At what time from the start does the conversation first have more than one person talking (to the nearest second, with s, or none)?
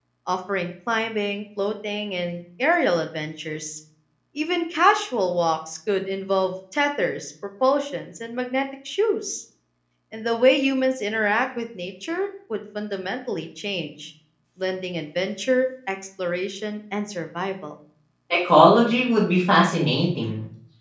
none